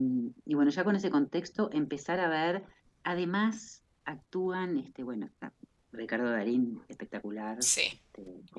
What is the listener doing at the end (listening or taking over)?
listening